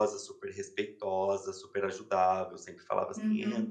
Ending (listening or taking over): listening